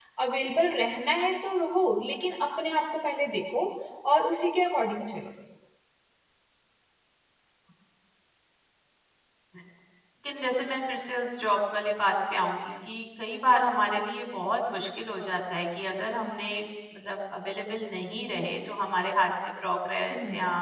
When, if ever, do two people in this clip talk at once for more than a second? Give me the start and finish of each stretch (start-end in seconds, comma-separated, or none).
none